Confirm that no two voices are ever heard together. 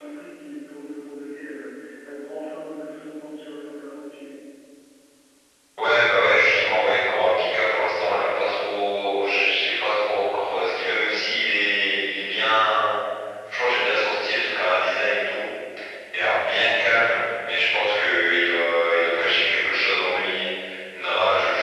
Yes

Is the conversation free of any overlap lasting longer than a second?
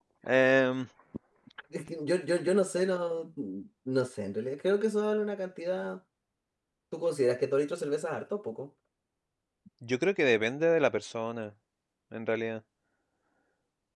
Yes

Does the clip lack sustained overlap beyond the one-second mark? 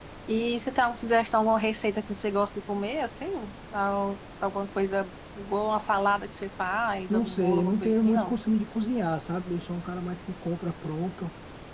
No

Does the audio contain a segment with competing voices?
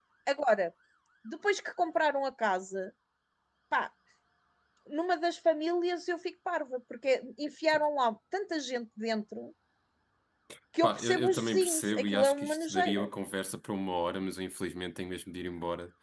Yes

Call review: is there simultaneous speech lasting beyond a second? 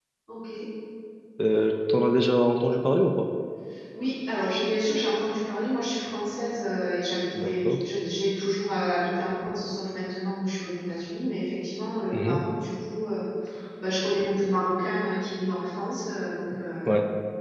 No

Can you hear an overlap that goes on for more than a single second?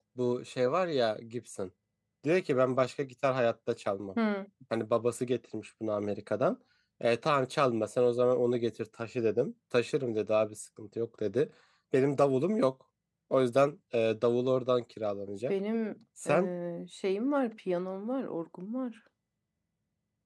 No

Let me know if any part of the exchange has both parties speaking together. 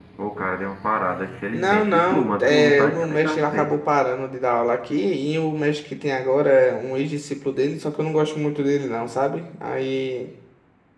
Yes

